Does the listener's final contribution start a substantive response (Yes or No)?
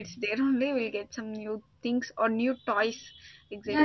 Yes